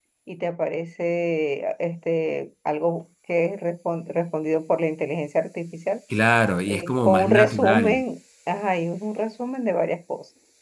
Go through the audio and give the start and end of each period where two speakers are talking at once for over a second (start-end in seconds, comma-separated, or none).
6.7-8.0